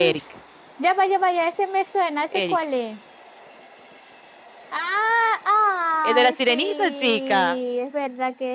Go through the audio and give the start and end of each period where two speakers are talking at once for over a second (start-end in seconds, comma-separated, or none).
6.0-7.6